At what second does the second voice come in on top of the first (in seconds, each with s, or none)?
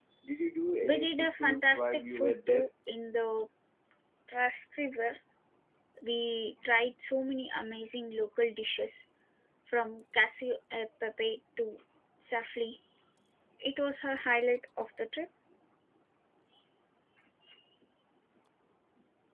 0.8 s